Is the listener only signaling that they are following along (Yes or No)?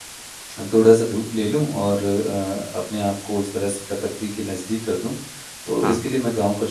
Yes